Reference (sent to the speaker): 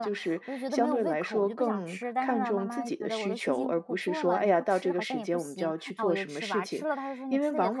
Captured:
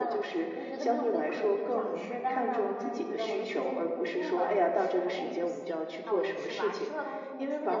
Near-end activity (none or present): none